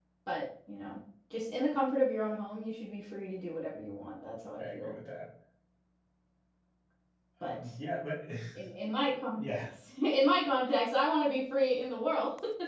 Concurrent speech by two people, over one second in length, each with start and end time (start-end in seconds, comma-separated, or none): none